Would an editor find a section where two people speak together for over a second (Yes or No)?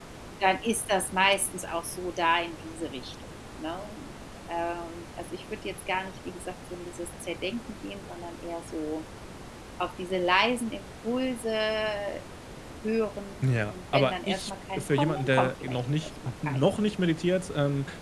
Yes